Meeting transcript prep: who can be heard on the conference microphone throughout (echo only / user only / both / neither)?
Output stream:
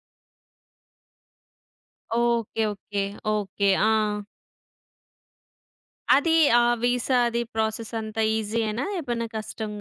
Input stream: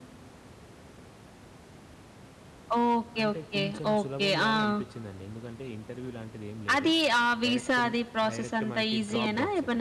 both